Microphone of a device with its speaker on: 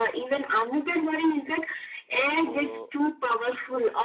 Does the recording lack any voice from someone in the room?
No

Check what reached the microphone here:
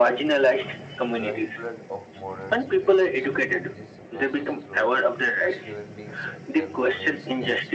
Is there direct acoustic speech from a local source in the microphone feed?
Yes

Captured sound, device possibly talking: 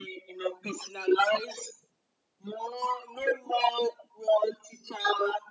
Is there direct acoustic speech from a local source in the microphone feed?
No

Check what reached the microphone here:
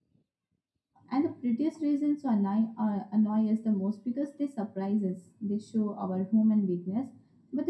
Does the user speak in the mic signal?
Yes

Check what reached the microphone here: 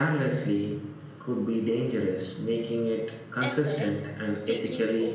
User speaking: Yes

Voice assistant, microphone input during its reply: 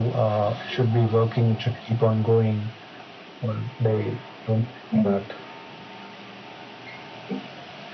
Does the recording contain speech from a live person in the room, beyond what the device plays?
No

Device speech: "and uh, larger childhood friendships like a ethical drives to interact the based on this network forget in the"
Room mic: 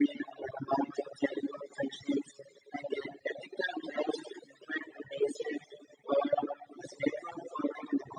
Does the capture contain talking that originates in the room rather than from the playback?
No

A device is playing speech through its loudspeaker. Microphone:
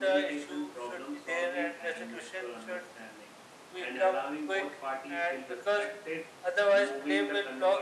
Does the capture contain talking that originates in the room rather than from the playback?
Yes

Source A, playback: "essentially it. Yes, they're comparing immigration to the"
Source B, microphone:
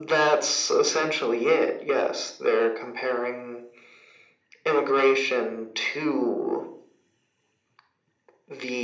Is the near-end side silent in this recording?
Yes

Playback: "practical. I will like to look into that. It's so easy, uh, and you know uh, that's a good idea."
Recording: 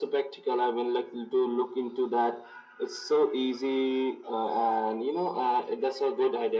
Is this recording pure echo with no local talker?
Yes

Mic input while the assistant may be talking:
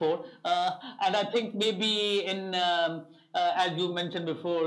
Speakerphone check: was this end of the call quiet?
Yes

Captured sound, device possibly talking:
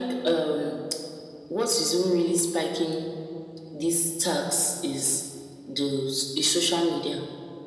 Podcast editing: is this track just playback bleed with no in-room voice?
Yes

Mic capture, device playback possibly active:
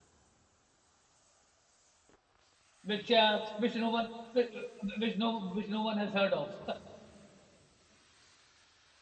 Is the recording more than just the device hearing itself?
Yes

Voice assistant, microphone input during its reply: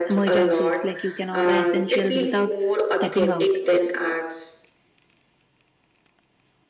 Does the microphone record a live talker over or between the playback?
Yes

